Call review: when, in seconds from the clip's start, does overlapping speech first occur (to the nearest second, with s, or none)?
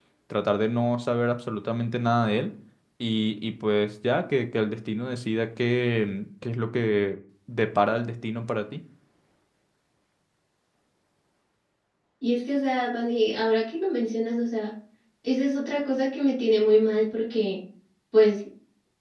none